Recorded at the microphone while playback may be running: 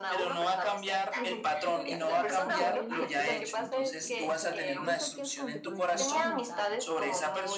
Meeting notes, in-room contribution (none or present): present